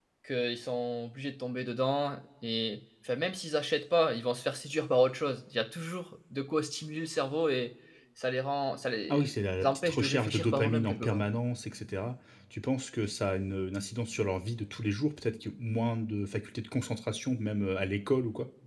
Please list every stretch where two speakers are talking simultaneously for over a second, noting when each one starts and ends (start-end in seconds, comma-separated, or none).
9.1-11.3